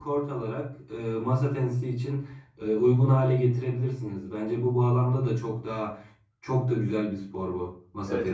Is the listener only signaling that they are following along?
No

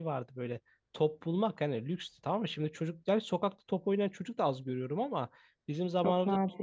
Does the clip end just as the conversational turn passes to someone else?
No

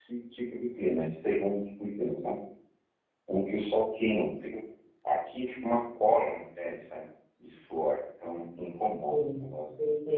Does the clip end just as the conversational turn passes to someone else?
Yes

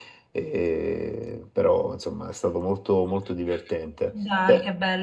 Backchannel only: No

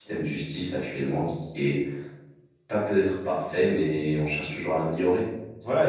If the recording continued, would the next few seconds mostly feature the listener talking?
Yes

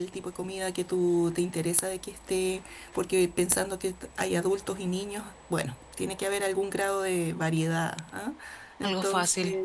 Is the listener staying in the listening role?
Yes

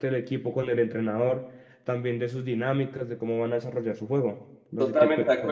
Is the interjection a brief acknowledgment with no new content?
No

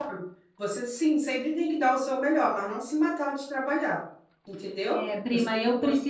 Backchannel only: No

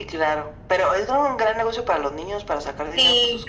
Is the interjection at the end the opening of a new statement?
Yes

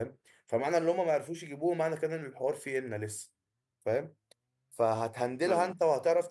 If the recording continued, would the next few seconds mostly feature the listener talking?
No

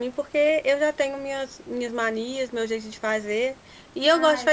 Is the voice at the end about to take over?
No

